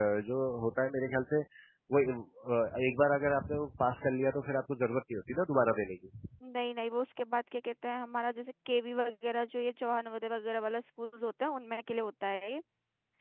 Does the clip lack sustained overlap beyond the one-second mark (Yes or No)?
Yes